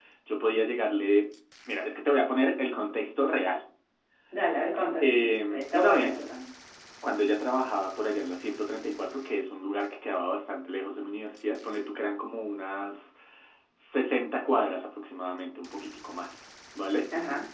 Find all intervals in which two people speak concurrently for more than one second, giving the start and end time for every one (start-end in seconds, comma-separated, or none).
5.0-6.2